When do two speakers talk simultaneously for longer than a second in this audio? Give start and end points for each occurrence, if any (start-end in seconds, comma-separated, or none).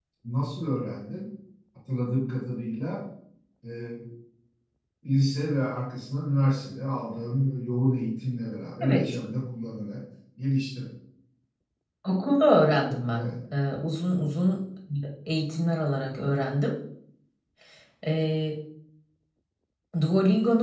none